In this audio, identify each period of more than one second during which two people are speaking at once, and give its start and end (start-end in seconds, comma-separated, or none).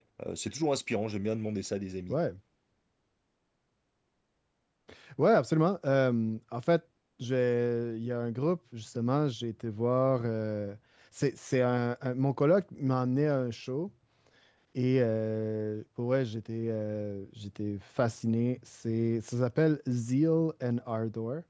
none